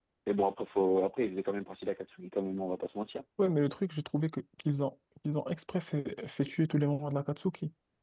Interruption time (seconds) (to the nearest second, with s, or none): none